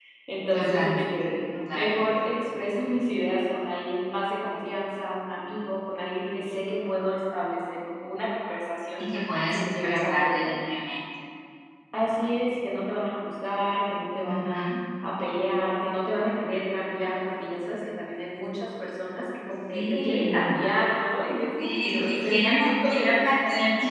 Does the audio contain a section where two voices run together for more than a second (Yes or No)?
Yes